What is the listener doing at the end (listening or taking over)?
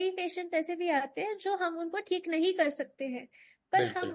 listening